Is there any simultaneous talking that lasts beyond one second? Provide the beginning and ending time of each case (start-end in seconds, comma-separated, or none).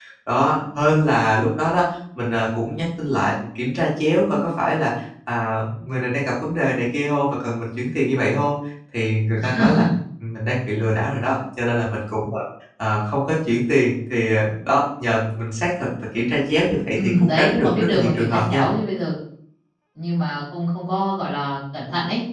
16.9-18.7